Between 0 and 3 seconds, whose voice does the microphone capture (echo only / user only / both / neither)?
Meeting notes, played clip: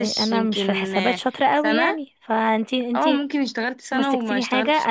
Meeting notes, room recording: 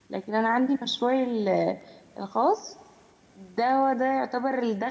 user only